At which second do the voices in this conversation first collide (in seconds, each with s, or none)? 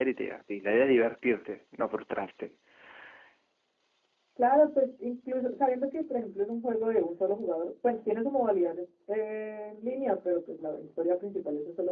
none